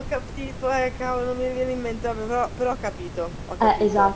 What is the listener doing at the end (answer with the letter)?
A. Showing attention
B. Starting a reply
B